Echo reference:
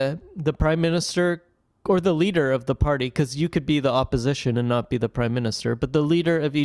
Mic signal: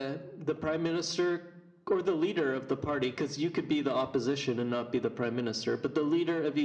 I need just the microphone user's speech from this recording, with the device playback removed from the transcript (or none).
none